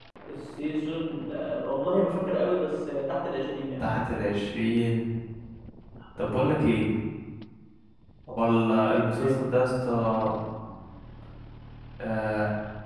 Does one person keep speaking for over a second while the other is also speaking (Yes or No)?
No